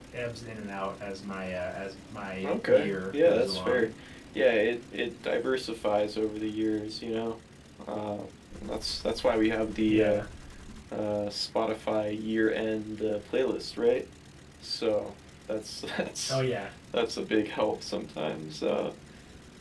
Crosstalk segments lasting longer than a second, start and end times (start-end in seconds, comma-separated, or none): 2.4-3.9